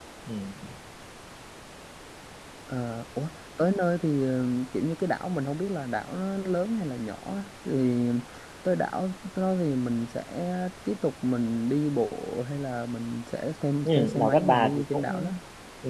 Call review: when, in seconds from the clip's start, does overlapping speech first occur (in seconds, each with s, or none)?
13.8 s